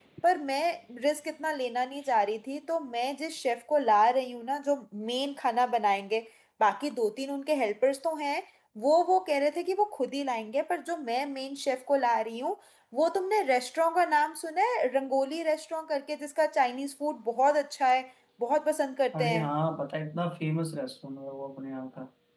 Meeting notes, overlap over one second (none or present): none